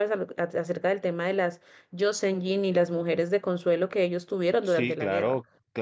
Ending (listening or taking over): taking over